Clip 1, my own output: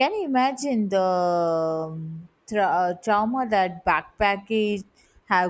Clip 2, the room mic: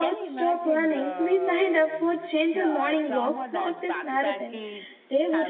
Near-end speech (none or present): present